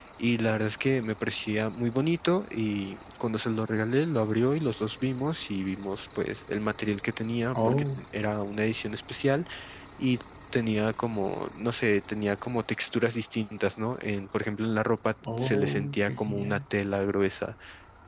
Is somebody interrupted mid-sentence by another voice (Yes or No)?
Yes